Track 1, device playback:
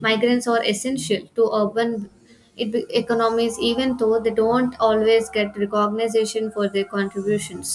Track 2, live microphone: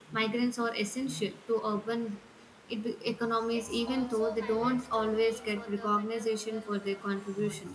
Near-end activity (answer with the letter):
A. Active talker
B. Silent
A